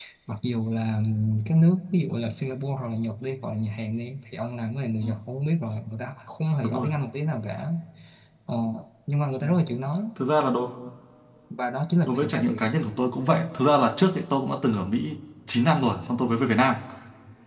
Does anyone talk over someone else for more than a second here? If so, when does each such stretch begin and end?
none

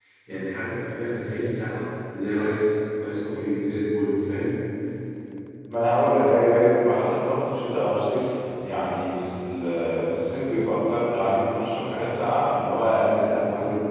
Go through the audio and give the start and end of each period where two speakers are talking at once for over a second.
none

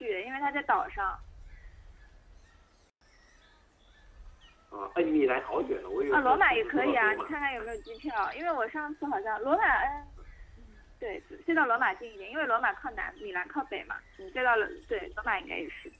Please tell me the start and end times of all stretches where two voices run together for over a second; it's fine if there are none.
6.1-7.3

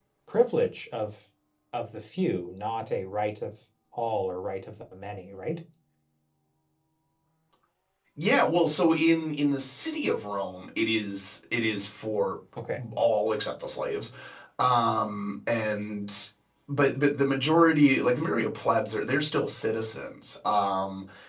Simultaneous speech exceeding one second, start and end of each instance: none

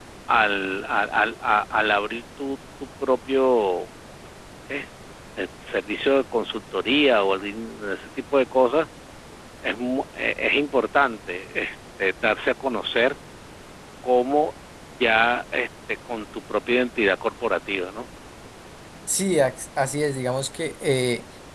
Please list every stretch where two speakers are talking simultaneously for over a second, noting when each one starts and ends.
none

